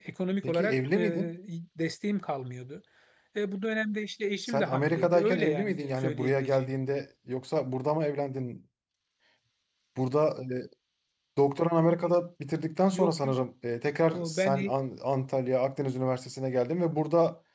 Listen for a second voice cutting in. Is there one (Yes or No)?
Yes